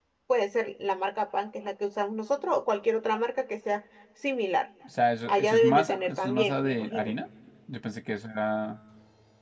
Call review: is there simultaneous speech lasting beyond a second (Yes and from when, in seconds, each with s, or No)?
Yes, from 5.3 s